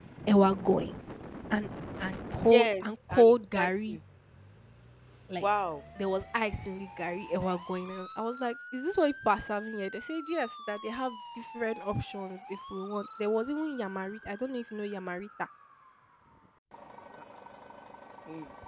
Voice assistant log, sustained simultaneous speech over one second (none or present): present